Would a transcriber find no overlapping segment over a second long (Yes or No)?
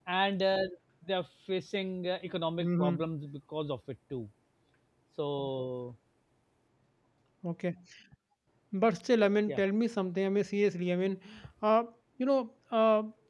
Yes